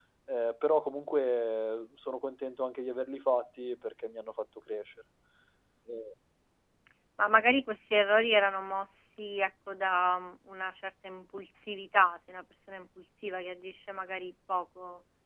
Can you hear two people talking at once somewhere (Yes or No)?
No